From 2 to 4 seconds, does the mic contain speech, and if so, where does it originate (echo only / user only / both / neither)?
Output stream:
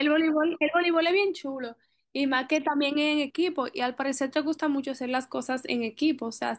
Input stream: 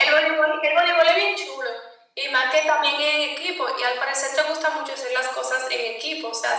echo only